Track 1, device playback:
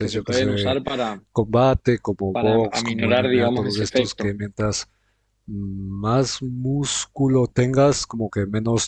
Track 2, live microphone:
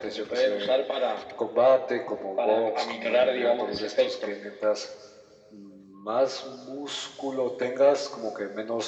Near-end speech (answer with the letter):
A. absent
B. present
A